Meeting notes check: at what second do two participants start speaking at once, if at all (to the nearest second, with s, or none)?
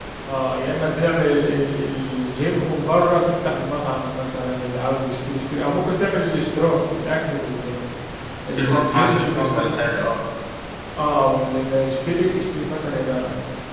9 s